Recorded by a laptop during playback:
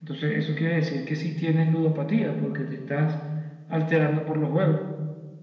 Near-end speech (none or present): none